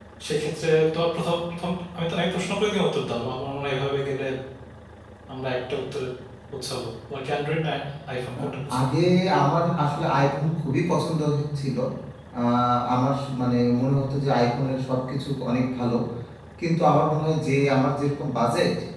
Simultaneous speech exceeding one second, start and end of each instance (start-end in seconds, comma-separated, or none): none